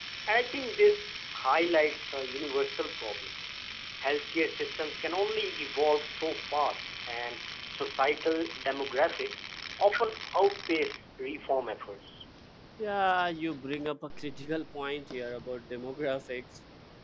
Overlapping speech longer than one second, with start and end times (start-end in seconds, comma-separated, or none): none